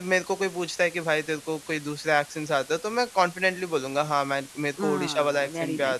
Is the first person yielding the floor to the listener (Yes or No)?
Yes